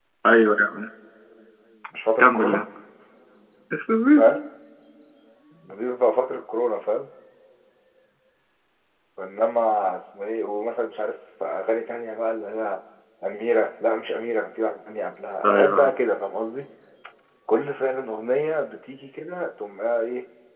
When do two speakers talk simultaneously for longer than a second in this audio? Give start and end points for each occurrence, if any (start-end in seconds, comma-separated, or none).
none